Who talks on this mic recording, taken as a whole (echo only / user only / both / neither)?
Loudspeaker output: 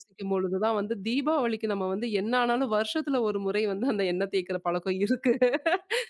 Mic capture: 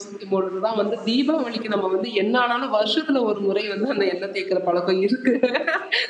echo only